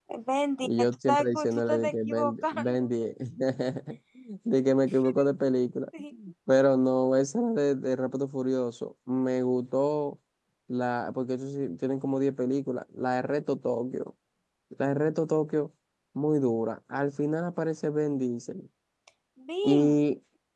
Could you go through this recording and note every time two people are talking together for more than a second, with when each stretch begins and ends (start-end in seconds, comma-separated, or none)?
0.6-2.8